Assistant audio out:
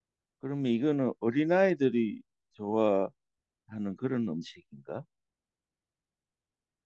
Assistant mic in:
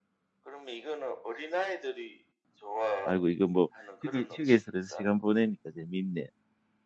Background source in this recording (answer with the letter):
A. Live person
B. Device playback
B